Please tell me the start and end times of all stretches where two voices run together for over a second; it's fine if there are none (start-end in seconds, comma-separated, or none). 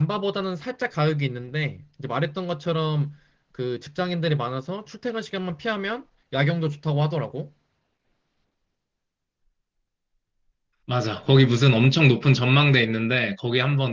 none